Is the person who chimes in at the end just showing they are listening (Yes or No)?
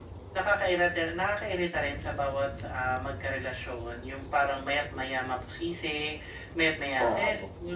Yes